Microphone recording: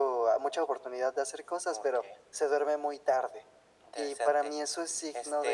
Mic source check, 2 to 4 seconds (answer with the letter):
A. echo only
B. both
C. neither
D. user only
A